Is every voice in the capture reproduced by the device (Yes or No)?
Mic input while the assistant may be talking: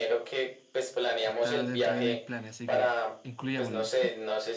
No